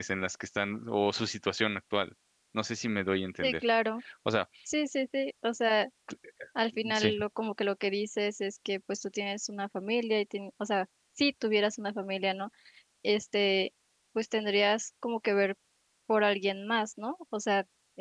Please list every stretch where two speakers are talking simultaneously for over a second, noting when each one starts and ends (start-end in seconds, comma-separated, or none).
none